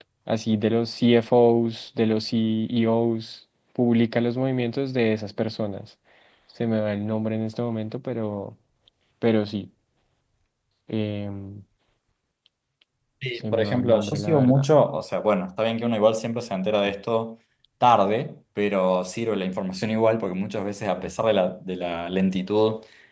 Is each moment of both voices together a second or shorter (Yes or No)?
No